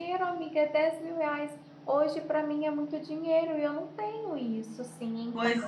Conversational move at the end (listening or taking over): taking over